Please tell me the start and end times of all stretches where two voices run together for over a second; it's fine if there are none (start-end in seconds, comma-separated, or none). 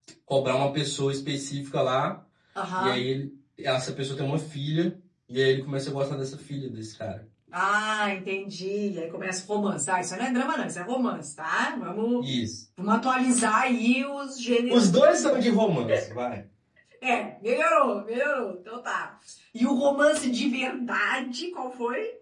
none